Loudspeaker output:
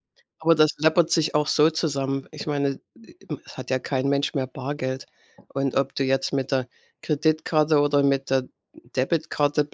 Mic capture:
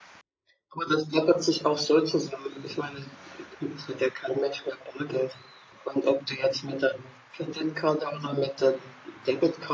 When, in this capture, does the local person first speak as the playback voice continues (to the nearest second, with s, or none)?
none